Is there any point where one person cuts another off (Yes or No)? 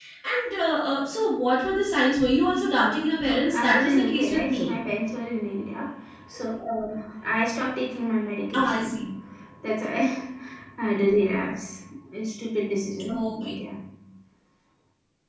Yes